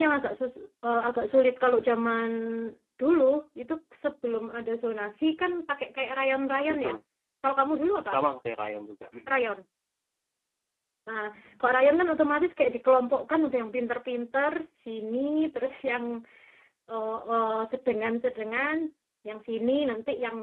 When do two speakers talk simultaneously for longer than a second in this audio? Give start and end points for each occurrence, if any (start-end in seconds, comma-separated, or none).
none